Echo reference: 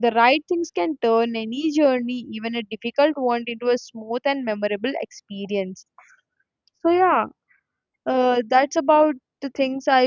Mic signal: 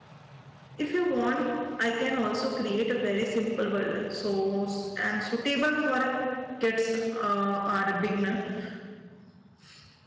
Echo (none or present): none